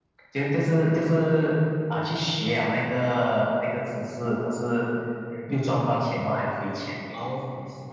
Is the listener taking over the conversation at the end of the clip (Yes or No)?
Yes